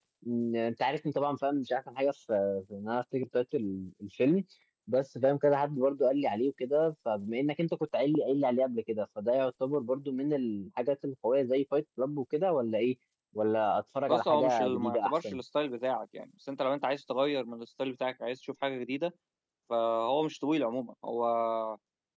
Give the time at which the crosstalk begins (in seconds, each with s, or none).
14.1 s